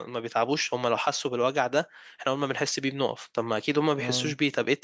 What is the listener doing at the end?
listening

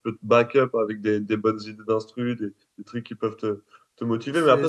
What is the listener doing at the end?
listening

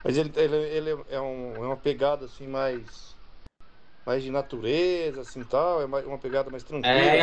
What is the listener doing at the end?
taking over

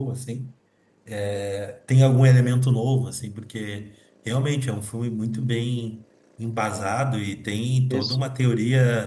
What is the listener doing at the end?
listening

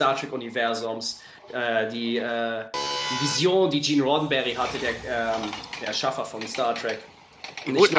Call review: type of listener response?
taking over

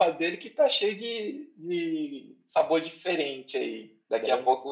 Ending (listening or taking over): listening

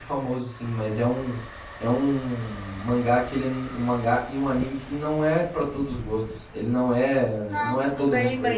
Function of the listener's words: taking over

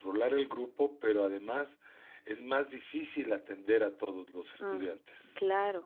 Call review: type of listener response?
taking over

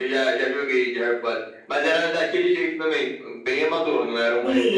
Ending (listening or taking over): taking over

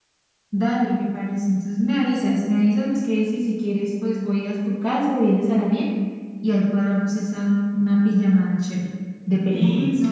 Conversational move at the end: taking over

